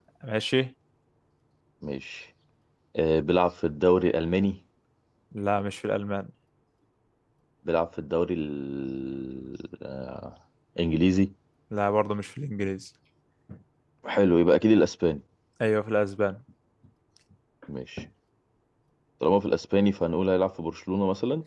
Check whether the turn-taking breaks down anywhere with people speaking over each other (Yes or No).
No